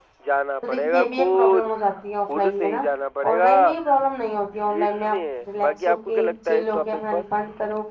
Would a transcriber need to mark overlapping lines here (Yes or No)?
Yes